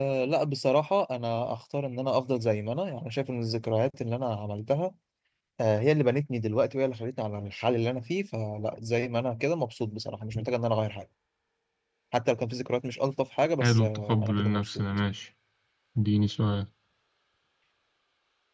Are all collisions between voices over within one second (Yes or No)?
No